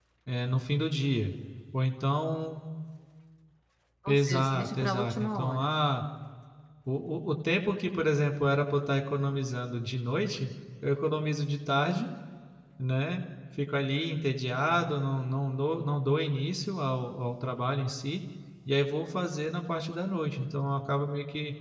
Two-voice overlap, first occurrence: 4.1 s

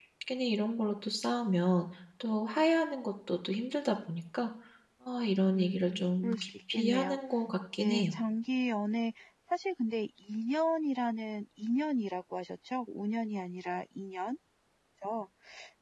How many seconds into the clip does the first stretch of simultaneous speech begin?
5.5 s

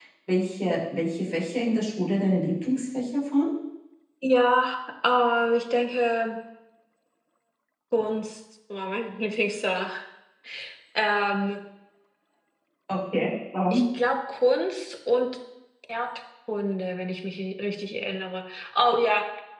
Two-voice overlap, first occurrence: none

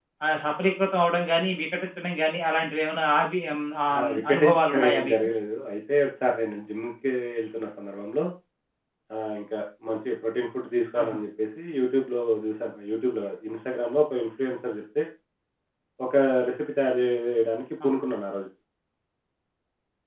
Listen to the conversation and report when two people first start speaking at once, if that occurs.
3.9 s

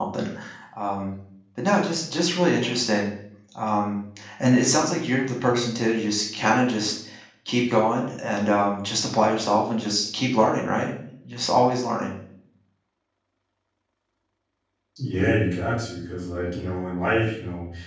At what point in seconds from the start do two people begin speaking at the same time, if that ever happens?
none

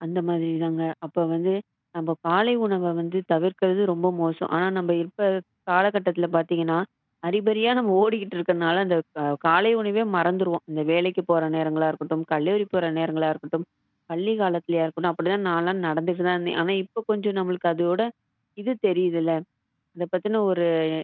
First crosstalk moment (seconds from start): none

